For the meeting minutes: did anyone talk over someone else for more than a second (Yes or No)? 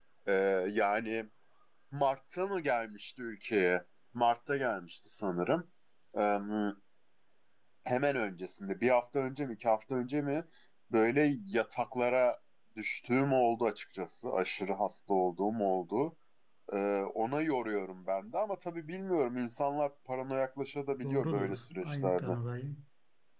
Yes